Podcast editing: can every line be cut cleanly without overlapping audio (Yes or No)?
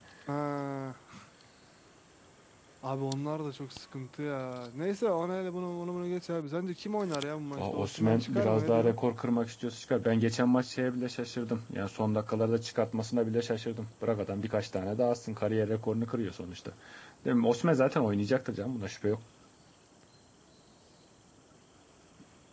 No